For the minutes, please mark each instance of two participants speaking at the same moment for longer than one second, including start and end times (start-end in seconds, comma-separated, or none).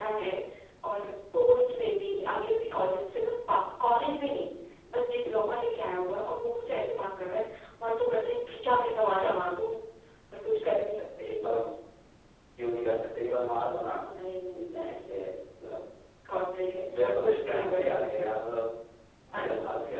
17.0-18.3